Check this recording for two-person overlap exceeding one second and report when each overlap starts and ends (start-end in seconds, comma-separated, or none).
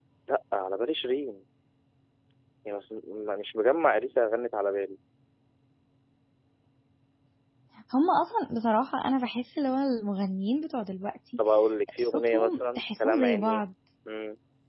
12.0-13.6